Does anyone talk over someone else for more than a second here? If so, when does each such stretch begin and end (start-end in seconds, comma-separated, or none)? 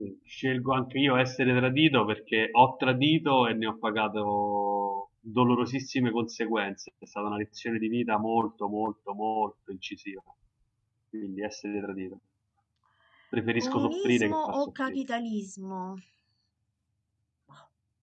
13.6-15.0